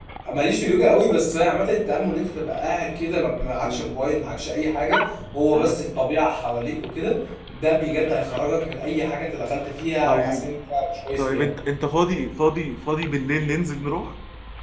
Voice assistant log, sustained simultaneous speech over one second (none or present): none